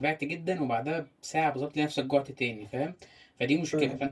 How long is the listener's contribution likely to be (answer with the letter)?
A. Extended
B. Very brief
B